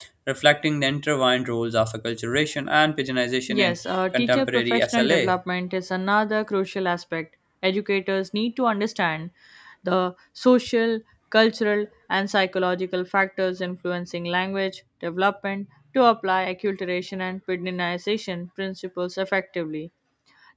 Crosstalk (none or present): present